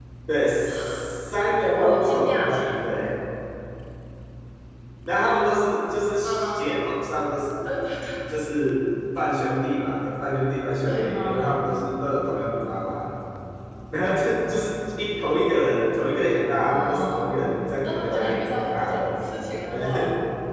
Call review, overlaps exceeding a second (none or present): present